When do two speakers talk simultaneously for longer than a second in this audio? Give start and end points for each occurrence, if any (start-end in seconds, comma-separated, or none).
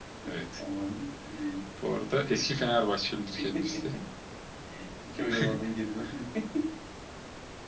none